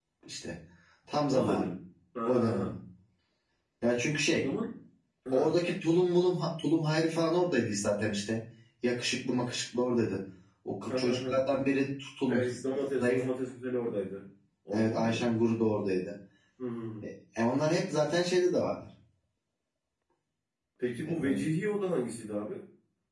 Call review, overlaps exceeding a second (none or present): none